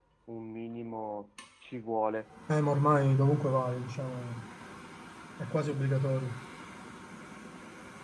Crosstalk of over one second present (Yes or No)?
No